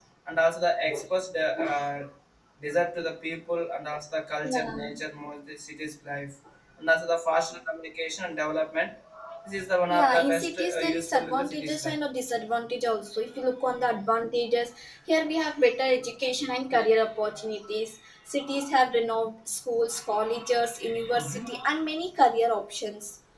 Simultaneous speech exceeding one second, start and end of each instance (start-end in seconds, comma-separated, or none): 9.9-11.9